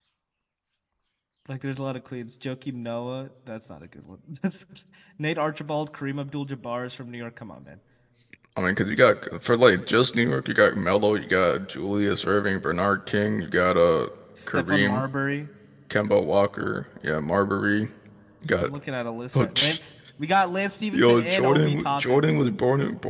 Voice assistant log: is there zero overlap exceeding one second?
No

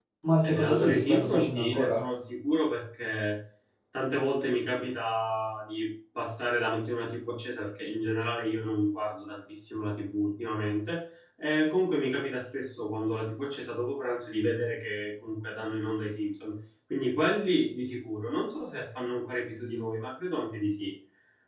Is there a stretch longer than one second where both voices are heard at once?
Yes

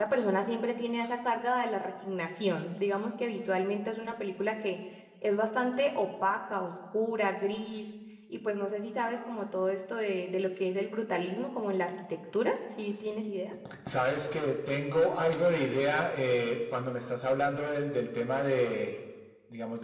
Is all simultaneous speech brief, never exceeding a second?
Yes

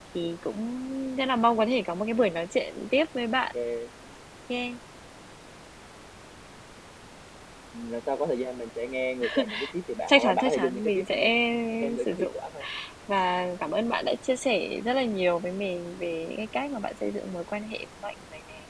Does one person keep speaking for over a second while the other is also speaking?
Yes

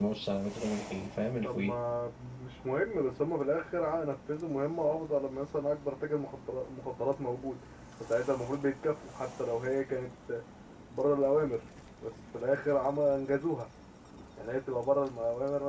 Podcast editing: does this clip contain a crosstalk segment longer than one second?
No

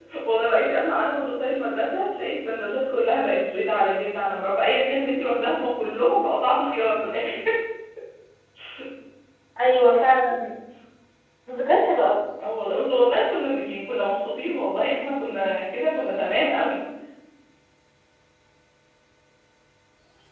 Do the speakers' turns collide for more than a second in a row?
No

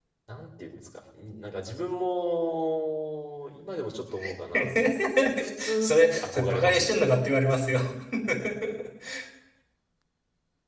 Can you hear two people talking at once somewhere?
Yes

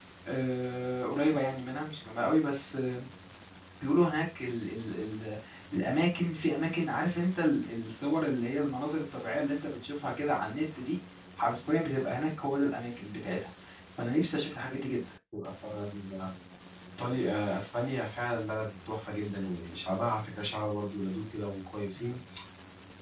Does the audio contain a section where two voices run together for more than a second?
No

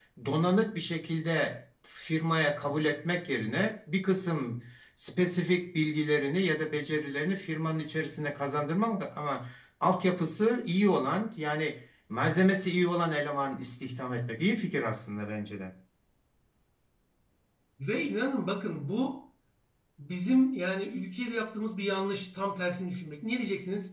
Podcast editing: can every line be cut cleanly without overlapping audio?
Yes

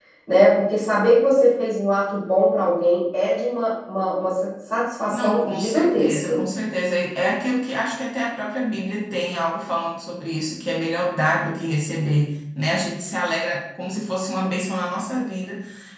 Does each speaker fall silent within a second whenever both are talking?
No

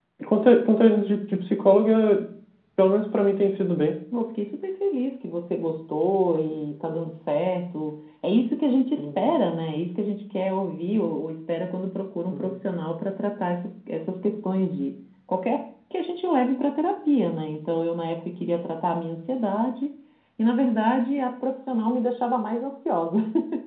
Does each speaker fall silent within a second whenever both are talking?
Yes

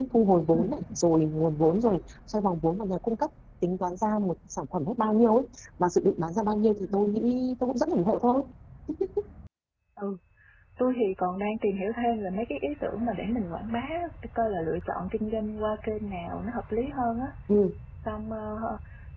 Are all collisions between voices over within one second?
Yes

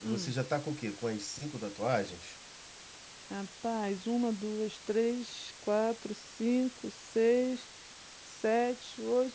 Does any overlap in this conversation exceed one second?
No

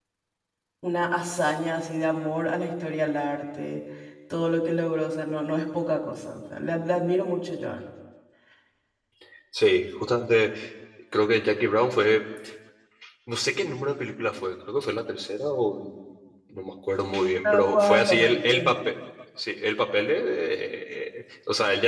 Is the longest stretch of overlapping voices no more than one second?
No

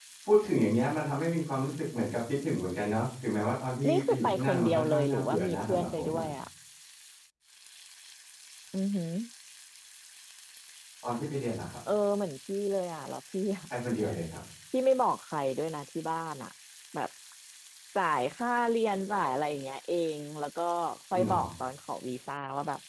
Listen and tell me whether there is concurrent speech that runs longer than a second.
Yes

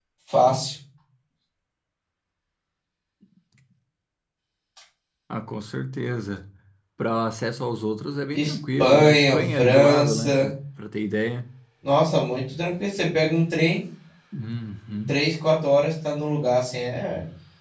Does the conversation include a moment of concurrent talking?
Yes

